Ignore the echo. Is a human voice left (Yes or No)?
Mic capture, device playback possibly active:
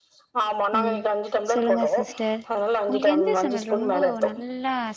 Yes